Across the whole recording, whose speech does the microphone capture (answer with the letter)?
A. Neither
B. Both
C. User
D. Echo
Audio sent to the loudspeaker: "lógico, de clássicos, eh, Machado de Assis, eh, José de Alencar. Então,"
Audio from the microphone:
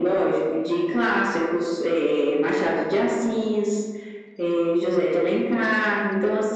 D